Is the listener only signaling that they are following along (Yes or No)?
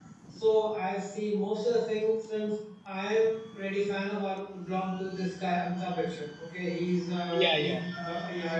Yes